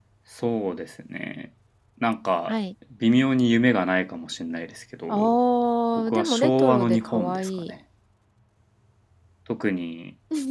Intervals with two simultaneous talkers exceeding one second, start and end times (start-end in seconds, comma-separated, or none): 6.1-7.7